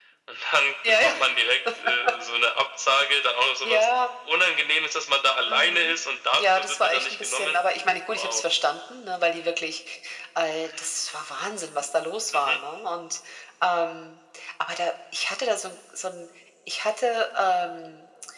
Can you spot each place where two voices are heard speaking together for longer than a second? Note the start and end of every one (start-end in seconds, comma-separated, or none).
6.4-7.6